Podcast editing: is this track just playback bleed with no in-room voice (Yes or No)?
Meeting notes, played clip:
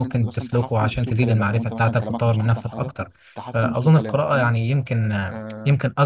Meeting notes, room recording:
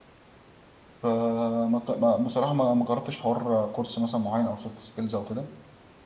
No